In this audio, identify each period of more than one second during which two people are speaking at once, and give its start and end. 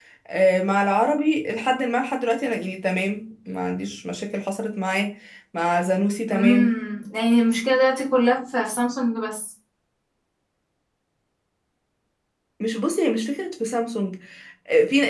none

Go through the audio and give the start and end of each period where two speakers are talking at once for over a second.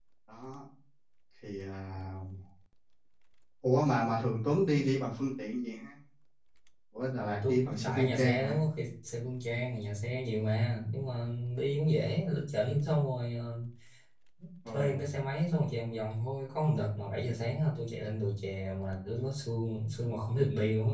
7.2-8.6

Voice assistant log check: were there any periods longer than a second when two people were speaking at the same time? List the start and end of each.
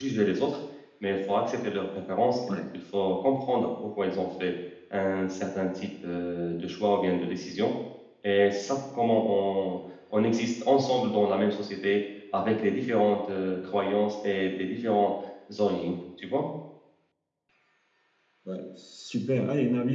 none

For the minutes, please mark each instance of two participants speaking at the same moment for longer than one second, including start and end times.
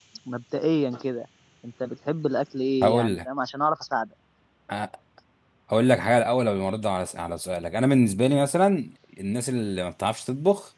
none

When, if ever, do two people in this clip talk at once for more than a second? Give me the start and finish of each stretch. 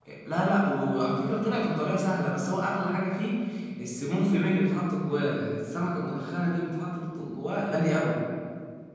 none

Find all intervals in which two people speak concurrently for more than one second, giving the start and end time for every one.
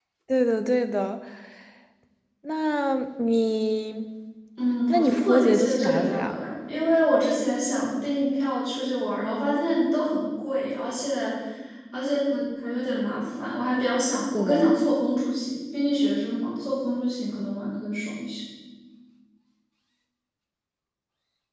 4.9-6.3

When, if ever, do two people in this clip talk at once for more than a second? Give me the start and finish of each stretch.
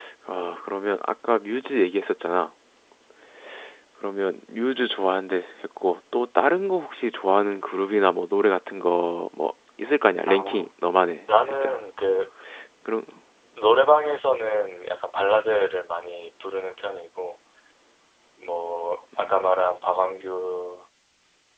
none

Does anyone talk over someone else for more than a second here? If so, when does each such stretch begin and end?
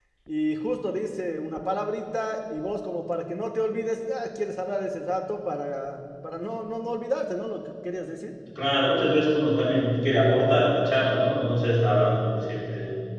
none

